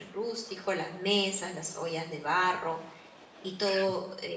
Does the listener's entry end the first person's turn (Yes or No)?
No